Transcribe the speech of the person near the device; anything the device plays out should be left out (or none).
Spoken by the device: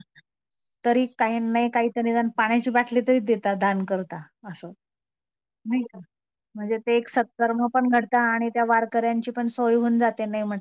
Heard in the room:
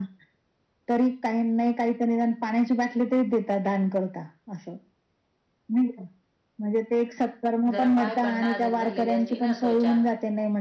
जरा पाय पण नाजूक झालेली असती ना त्वचा.